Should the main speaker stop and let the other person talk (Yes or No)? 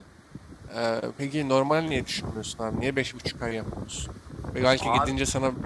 No